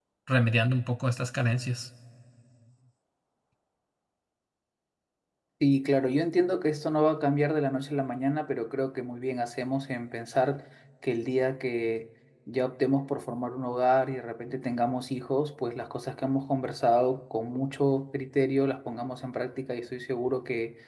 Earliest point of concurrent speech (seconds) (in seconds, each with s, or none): none